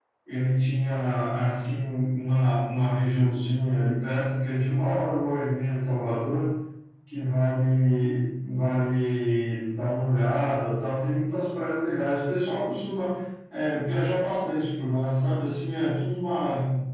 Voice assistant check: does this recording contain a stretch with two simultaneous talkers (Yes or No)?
No